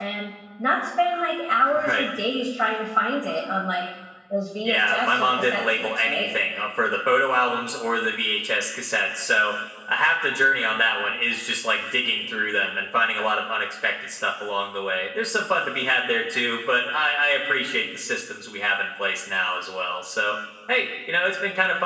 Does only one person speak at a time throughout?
No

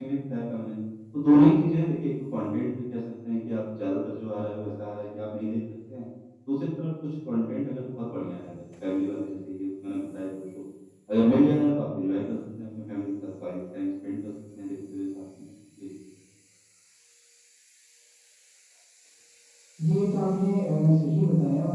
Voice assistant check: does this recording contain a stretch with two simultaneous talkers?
No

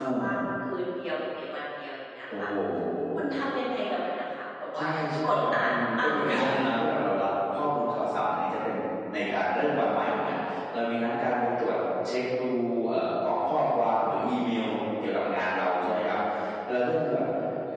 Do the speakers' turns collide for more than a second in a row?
Yes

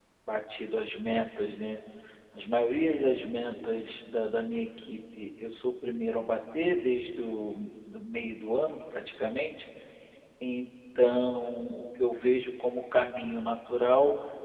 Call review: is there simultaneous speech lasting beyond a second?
No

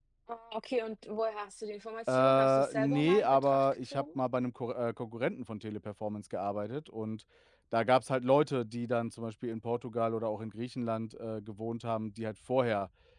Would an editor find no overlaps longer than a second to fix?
No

